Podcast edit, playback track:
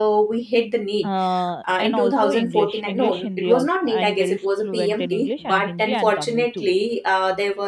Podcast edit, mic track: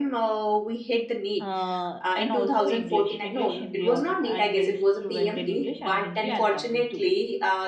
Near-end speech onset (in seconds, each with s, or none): none